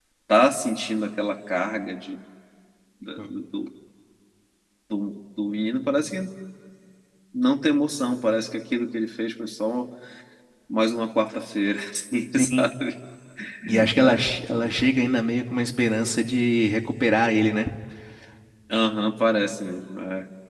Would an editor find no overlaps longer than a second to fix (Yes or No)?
Yes